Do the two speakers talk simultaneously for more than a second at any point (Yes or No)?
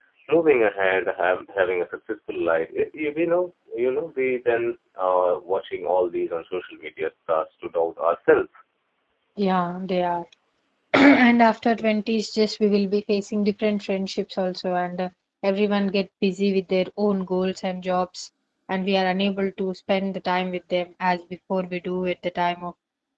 No